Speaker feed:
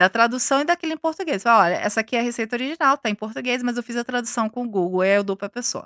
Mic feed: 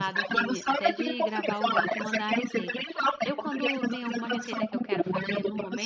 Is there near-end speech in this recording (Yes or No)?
Yes